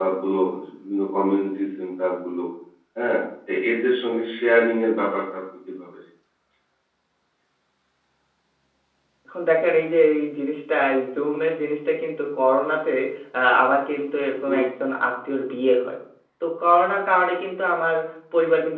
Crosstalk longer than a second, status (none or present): none